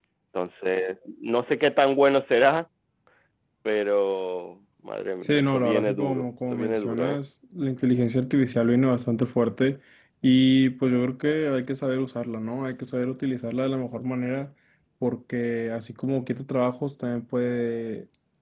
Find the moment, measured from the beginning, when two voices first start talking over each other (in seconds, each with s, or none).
5.2 s